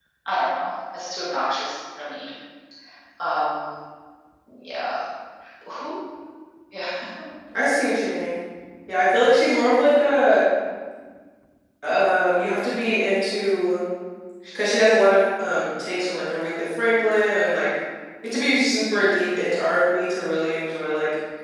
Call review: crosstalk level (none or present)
none